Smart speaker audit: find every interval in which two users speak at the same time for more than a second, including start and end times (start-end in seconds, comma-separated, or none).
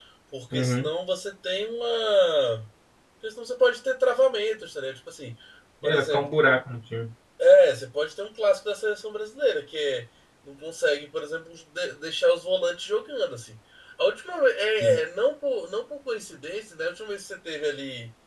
none